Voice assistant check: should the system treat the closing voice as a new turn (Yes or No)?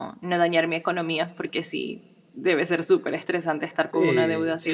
Yes